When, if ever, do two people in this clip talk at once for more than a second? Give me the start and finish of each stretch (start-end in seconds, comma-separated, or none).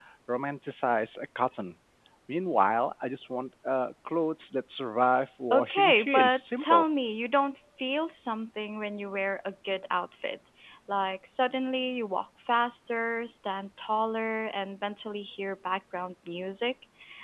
5.5-6.9